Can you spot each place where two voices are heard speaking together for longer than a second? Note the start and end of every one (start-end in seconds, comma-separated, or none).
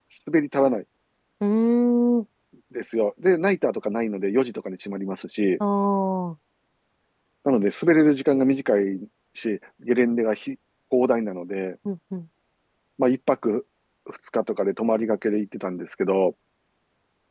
none